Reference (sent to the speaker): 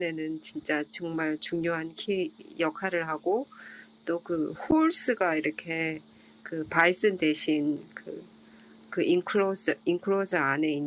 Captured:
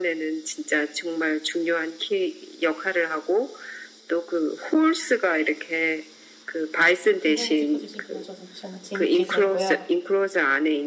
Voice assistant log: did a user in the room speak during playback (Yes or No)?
Yes